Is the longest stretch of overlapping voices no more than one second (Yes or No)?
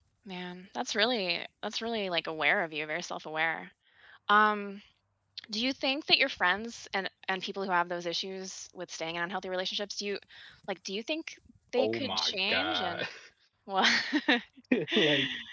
No